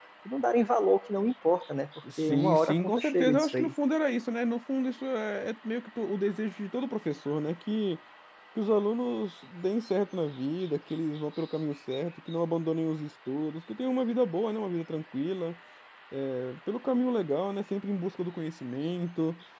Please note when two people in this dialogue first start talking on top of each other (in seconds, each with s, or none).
2.0 s